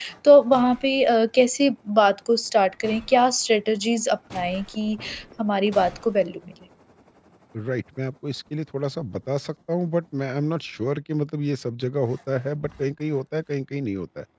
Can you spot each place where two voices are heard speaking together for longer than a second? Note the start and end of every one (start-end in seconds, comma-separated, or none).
none